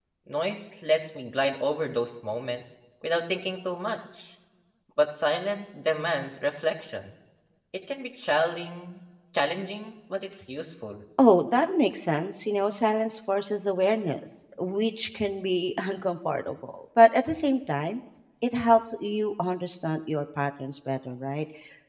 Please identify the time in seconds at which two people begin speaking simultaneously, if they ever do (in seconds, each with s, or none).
none